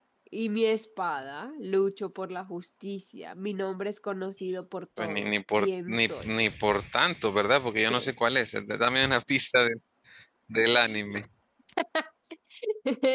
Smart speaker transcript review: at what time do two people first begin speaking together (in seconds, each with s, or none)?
5.0 s